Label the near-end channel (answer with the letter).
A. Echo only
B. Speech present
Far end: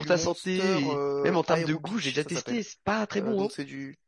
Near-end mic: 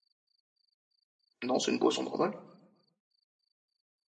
B